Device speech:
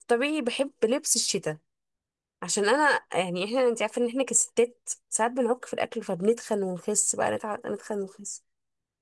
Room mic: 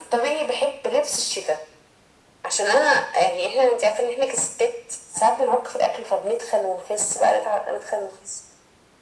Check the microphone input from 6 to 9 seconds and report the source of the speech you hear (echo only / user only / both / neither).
echo only